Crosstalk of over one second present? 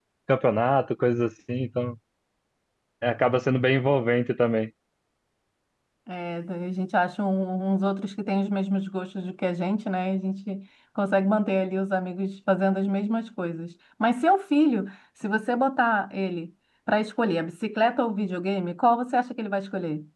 No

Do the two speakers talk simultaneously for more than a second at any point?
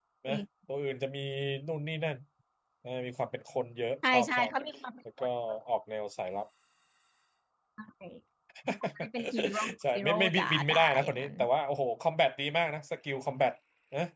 Yes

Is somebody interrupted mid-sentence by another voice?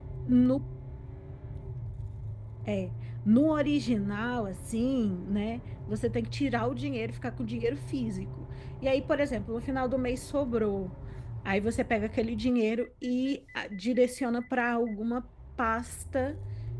No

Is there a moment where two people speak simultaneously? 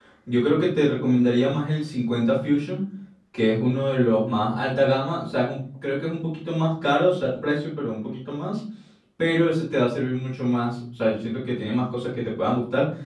No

